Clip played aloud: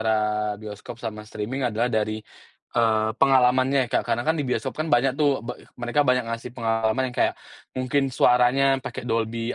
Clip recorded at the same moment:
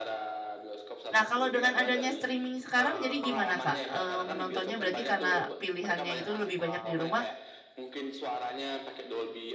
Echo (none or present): present